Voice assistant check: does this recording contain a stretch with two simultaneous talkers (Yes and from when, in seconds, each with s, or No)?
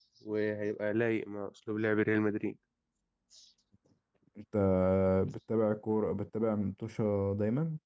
No